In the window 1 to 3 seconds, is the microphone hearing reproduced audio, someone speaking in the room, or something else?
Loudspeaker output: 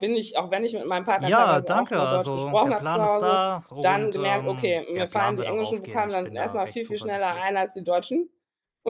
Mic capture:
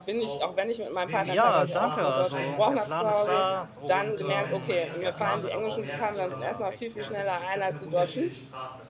both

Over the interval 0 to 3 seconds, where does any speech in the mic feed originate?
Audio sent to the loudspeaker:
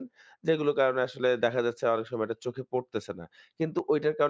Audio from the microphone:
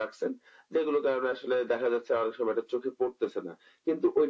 echo only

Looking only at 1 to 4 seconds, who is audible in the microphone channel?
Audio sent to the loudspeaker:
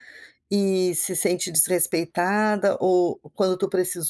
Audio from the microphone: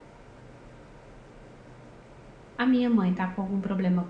user only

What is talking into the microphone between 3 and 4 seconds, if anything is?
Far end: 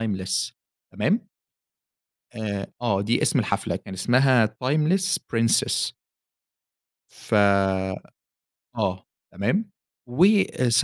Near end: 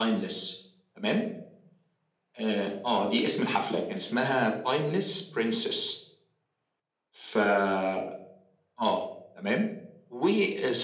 echo only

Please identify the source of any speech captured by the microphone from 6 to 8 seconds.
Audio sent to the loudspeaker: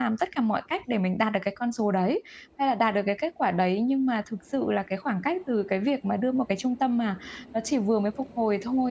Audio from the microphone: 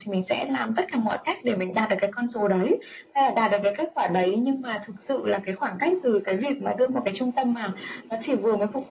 echo only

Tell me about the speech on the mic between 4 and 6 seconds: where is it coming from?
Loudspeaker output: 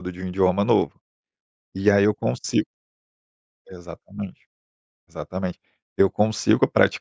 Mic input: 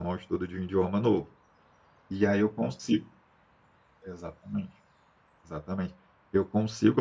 echo only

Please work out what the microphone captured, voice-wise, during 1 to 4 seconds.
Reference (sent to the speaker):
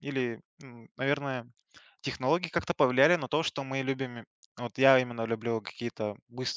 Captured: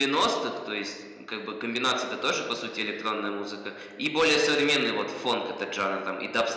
user only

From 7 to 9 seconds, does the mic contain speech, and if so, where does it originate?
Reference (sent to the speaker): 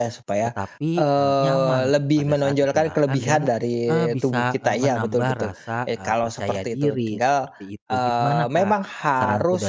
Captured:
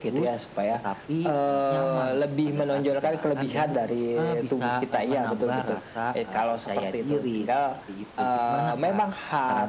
echo only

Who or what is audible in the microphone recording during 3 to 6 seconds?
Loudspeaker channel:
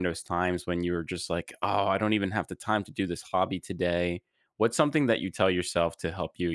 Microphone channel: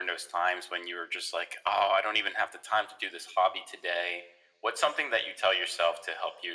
echo only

